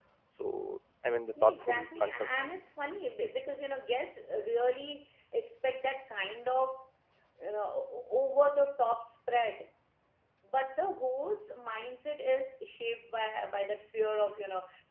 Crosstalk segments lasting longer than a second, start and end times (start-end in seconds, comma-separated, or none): 1.4-2.6